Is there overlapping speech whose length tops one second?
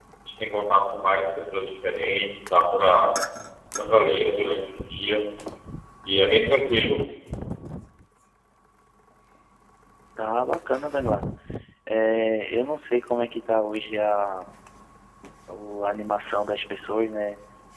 No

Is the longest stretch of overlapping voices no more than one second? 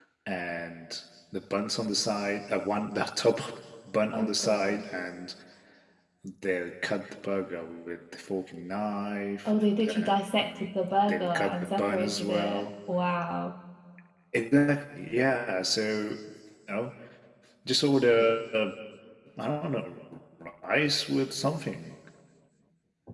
No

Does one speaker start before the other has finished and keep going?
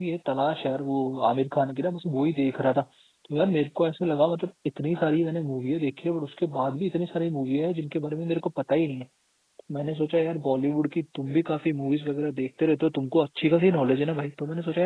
No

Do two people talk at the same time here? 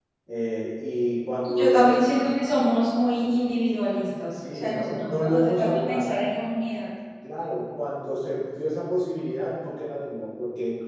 Yes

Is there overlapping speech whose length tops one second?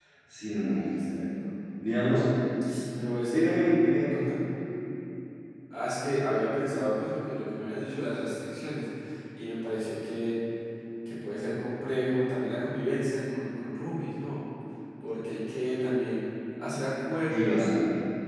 No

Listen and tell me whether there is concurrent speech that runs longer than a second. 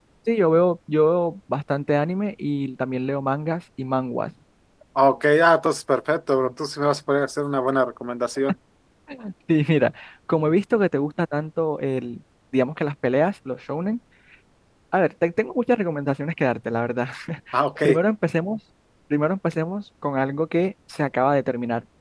No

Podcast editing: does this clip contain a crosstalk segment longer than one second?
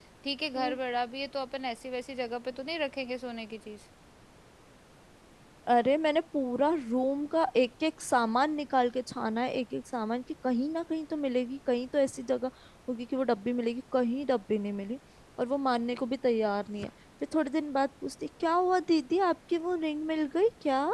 No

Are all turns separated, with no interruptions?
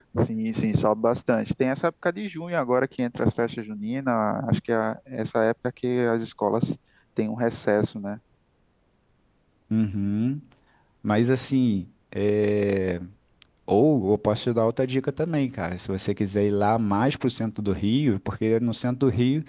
Yes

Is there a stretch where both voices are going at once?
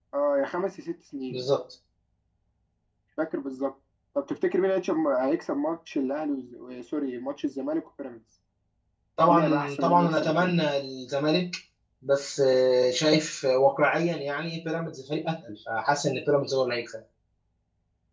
Yes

